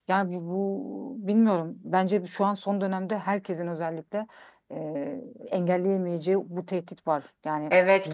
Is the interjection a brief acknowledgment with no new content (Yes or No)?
No